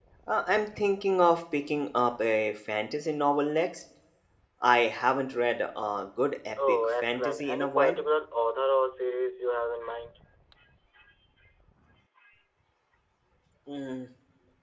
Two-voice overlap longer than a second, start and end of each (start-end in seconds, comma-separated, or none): 6.7-8.0